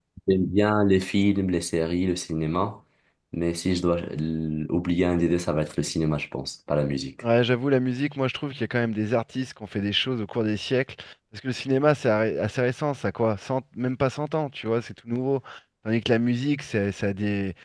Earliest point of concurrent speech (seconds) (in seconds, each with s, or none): none